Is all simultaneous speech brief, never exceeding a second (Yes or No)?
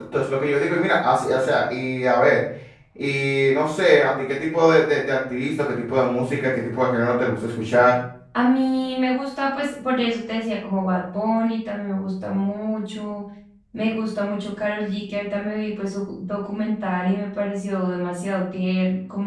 Yes